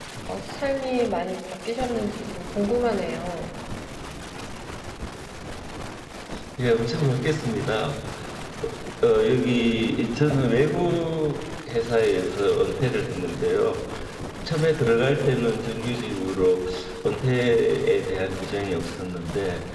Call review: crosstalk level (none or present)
none